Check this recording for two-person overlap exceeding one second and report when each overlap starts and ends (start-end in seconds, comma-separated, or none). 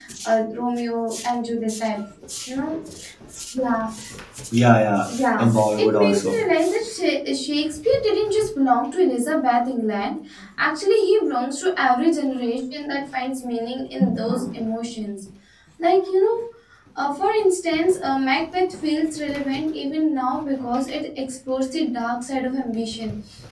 5.1-6.4